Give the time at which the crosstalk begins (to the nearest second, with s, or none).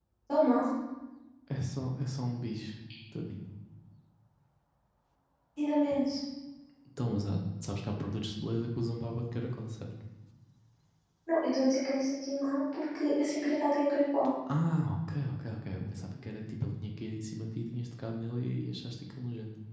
none